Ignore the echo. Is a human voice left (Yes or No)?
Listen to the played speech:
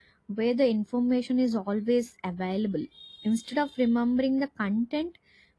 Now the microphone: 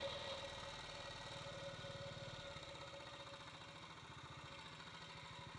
No